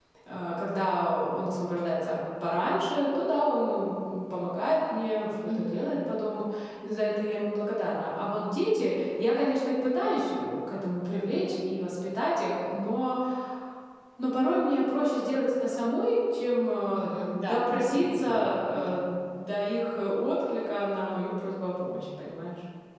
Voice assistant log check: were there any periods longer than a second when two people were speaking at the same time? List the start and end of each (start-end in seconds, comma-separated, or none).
16.9-19.0